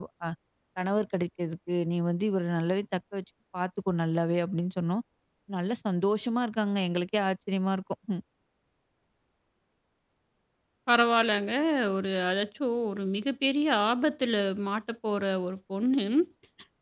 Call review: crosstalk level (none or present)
none